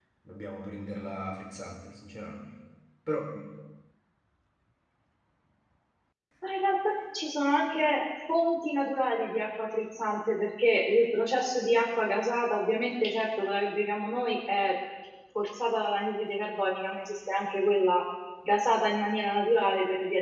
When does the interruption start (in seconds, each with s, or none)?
none